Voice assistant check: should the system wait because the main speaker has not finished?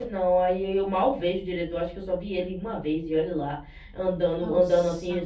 Yes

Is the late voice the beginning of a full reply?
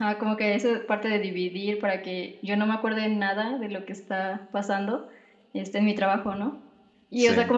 No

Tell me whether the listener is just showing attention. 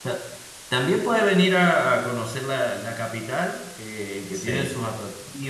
Yes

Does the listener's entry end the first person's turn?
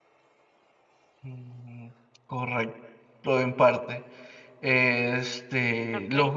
No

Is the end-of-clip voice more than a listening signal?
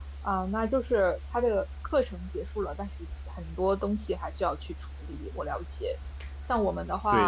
No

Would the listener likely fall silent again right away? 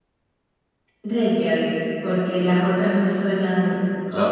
Yes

